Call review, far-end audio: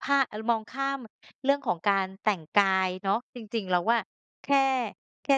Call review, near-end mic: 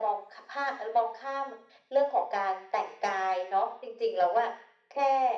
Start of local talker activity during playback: none

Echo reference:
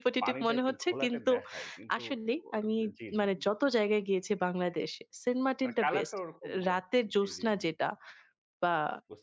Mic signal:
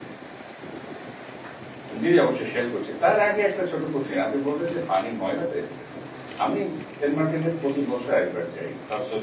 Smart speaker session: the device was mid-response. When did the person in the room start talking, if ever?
2.0 s

